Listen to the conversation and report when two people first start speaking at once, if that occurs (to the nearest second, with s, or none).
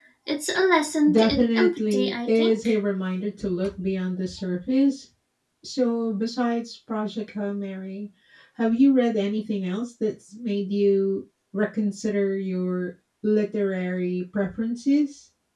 1 s